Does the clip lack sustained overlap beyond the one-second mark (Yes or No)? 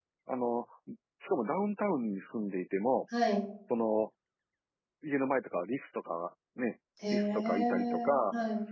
No